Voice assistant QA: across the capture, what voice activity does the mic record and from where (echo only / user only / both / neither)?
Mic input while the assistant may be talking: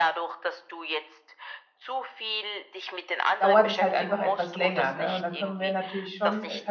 both